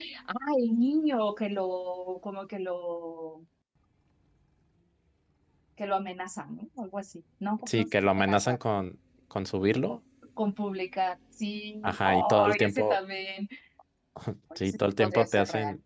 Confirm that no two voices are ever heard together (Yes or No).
No